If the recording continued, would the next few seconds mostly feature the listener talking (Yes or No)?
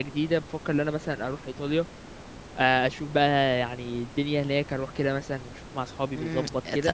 Yes